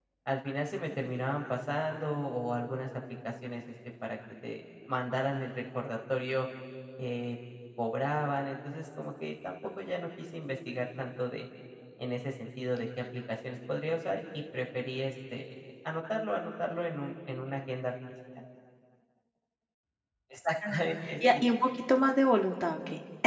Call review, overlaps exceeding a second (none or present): none